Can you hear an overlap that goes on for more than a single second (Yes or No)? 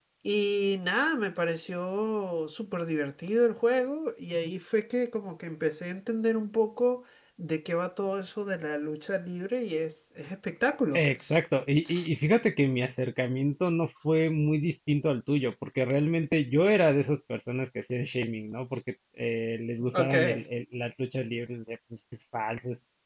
No